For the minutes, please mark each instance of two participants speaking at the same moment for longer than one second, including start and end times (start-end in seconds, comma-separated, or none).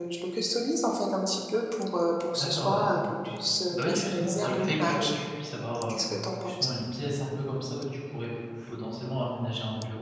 3.7-5.1